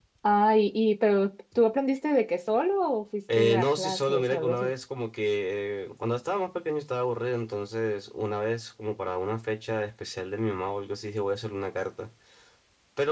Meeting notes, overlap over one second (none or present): present